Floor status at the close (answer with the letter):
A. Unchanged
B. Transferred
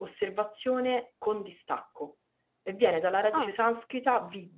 A